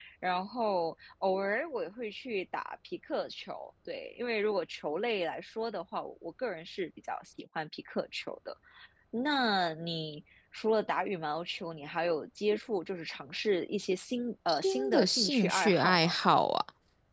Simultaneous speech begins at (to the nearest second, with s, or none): 14 s